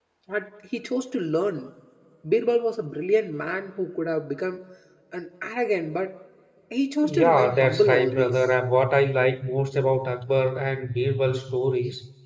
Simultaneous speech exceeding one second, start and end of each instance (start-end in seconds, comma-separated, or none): 7.0-8.4